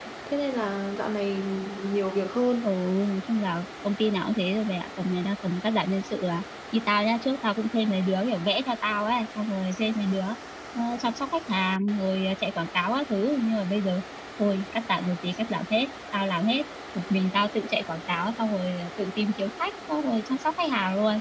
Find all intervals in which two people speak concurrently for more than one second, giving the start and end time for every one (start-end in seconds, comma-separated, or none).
none